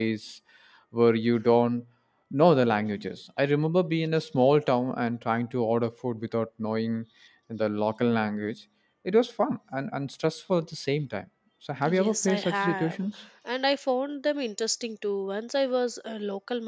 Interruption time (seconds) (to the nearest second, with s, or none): 12 s